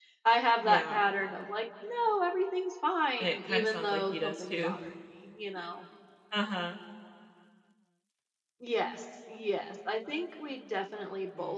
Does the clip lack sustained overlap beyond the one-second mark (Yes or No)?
No